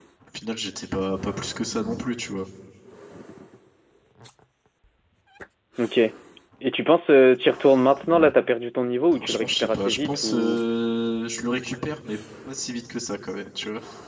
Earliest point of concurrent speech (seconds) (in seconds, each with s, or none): 9.1 s